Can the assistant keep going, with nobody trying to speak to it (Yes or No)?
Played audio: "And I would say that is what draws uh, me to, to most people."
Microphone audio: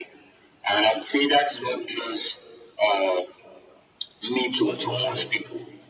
No